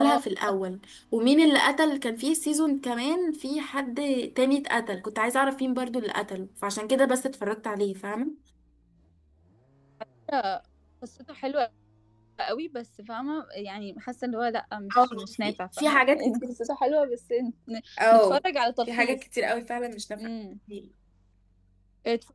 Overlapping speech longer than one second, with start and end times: 15.0-16.4

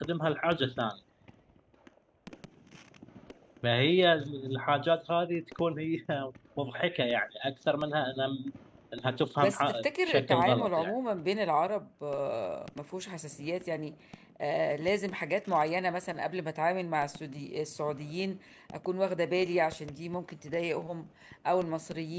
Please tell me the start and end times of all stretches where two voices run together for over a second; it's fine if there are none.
9.4-10.9

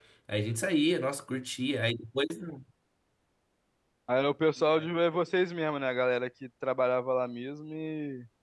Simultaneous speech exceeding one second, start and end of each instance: none

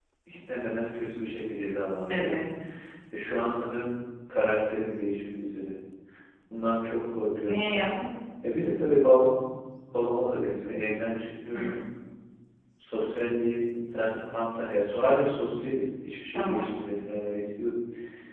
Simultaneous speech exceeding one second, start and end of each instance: none

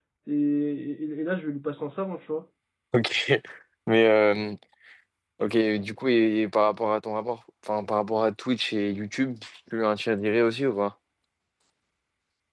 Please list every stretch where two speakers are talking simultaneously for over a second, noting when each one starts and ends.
none

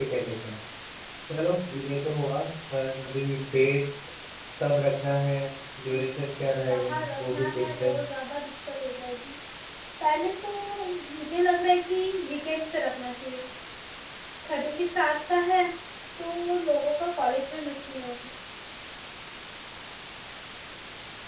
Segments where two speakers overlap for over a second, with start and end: 6.7-8.0

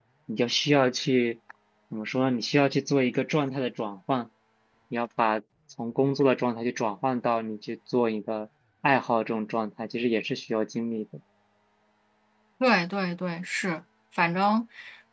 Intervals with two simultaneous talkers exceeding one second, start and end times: none

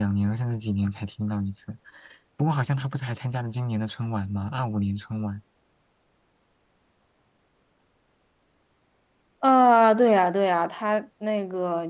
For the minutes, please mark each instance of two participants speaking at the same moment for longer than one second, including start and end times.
none

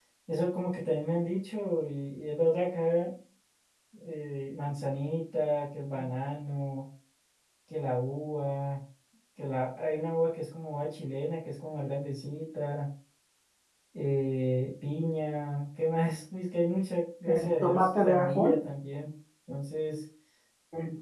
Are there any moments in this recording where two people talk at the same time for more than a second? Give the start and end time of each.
17.3-18.6

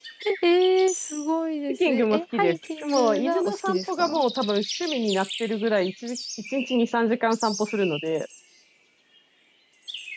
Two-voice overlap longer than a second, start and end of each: 1.7-4.2

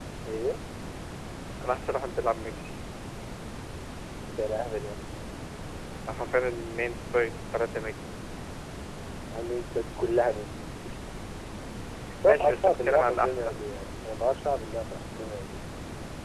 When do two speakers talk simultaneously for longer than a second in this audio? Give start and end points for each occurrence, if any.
12.2-13.6

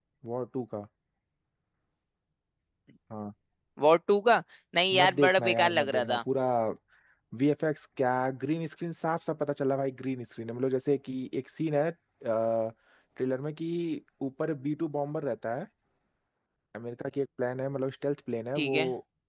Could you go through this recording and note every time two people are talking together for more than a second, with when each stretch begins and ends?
5.0-6.2

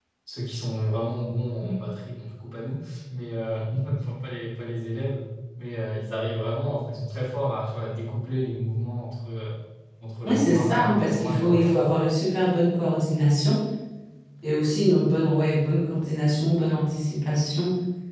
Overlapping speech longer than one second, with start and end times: 10.2-11.9

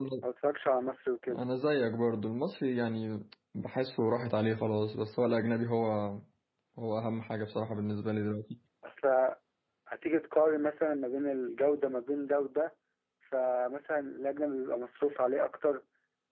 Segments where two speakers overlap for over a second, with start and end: none

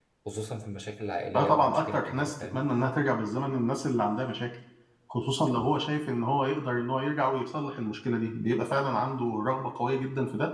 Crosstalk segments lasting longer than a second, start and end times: 1.3-2.6

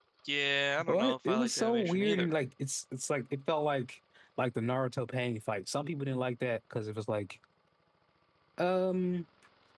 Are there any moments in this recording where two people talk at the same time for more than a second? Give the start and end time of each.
0.8-2.4

